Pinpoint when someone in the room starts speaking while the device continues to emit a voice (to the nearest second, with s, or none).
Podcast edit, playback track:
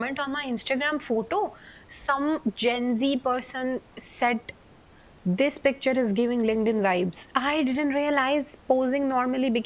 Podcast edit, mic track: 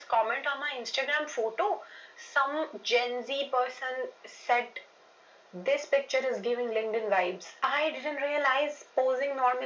none